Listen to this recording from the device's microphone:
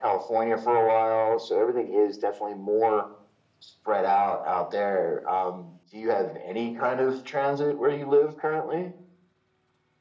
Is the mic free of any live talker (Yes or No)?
Yes